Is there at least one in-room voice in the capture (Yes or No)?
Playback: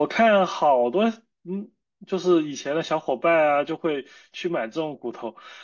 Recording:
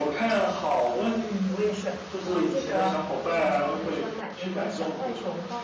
Yes